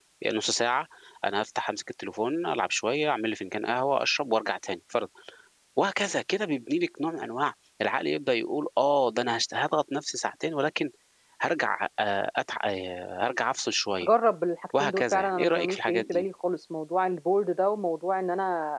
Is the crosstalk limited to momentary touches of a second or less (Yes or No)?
No